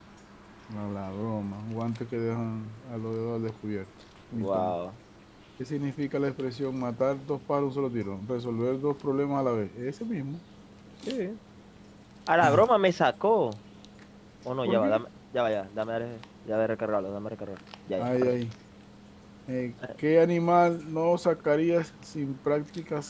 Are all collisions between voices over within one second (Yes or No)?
Yes